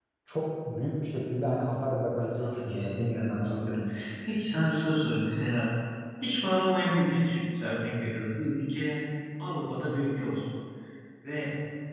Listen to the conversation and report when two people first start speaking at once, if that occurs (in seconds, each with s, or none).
2.2 s